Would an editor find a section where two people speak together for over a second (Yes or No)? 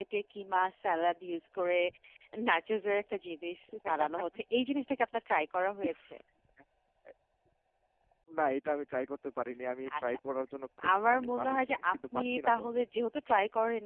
Yes